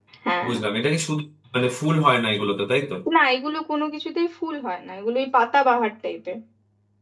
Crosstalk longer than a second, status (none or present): none